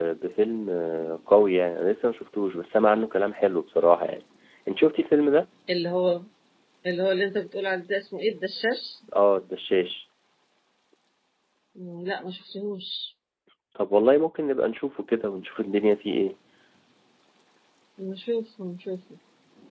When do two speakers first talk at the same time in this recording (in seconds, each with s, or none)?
none